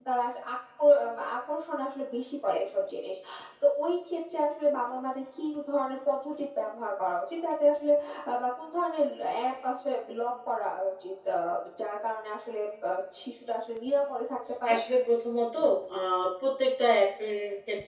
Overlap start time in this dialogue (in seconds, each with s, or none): none